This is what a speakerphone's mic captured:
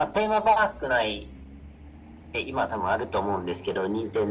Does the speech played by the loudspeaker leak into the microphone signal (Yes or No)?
Yes